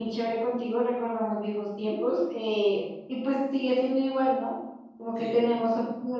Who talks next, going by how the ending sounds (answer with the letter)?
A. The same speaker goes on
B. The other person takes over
A